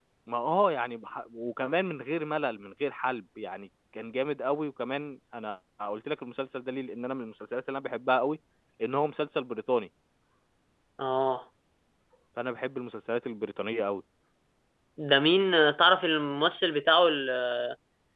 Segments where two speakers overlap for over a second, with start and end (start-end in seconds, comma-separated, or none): none